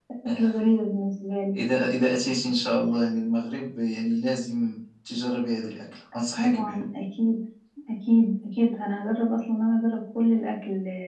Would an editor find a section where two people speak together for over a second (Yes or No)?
No